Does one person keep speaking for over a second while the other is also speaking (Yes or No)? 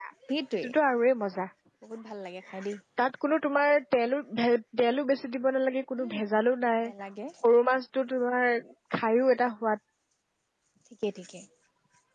No